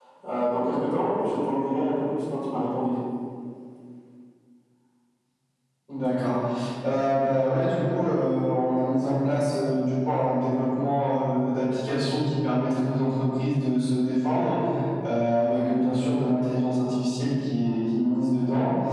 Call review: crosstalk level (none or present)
none